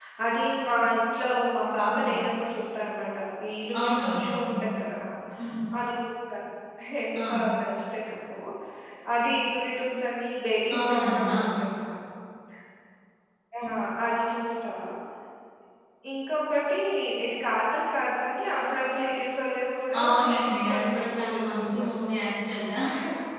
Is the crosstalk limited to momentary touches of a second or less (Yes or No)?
No